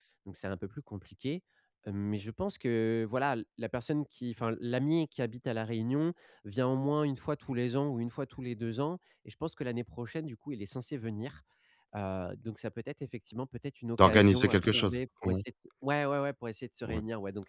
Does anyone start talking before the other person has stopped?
Yes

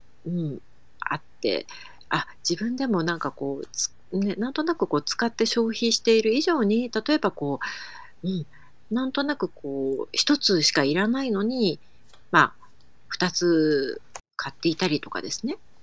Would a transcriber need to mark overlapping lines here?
No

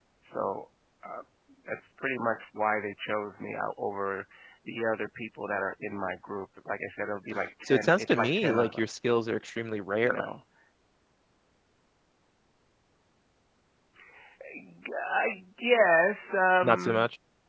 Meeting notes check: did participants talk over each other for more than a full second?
Yes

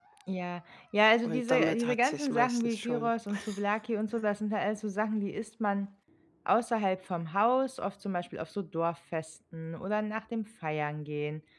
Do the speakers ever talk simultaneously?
Yes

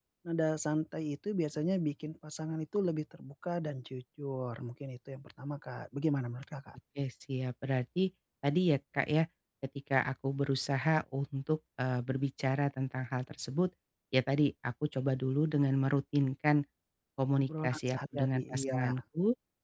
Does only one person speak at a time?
No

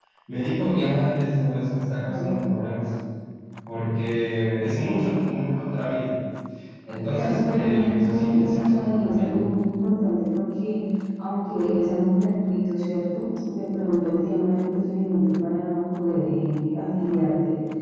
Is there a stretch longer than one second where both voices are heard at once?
Yes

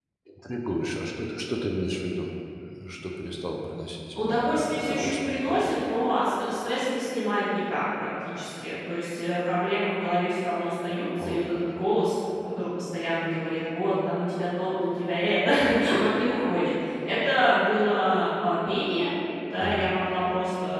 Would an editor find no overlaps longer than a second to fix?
No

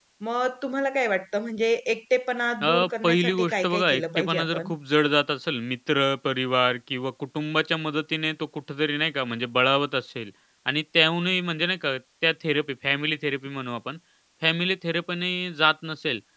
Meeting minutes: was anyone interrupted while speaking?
Yes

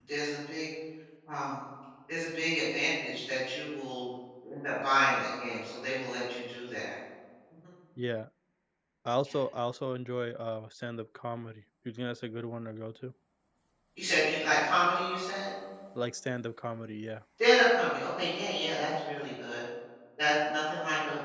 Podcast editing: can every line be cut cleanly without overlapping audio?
Yes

